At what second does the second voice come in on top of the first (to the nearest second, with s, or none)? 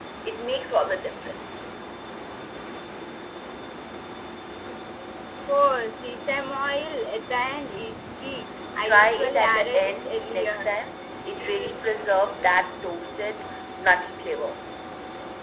9 s